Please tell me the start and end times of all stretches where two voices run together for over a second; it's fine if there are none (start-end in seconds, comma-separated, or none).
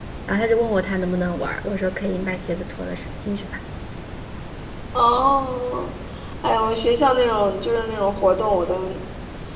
none